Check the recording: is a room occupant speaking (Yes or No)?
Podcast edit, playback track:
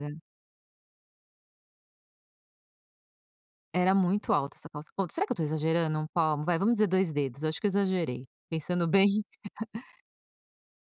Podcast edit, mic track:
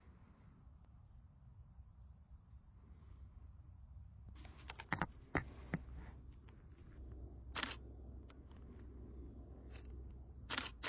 No